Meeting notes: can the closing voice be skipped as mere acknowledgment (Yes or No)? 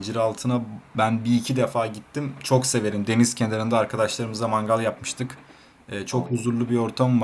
Yes